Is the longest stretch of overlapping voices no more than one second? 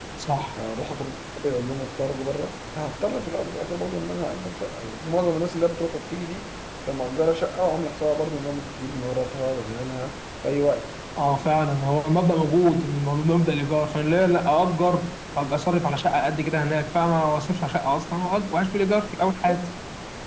Yes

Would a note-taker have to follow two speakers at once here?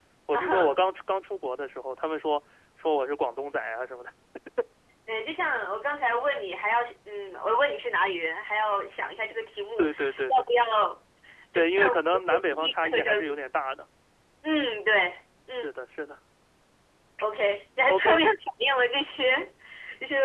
Yes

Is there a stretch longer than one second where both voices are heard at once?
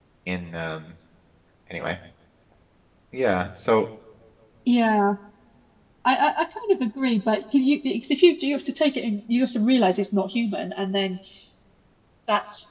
No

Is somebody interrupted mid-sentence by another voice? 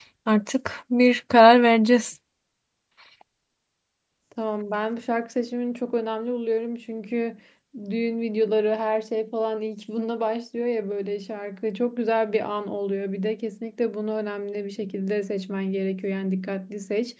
No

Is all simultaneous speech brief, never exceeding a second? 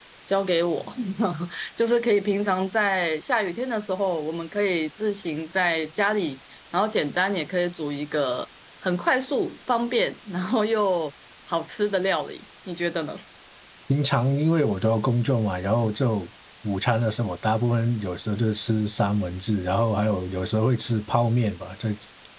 Yes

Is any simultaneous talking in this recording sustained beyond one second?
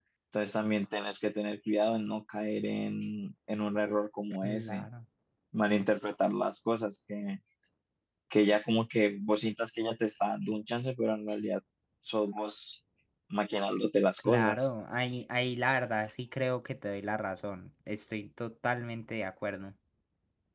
No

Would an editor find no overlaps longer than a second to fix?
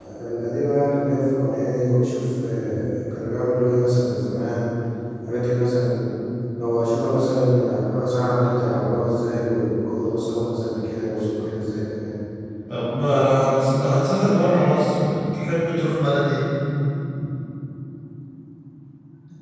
Yes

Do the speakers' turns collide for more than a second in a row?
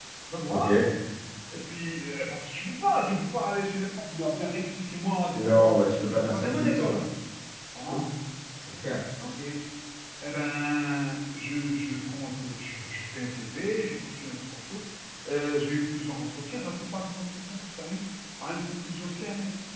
Yes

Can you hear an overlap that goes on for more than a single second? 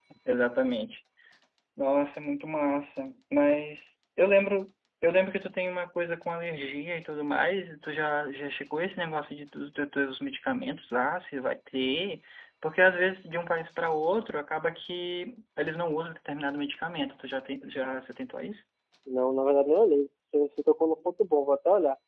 No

